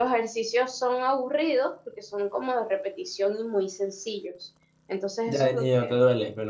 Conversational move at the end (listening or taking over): taking over